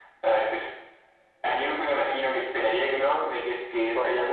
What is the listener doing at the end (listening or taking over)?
listening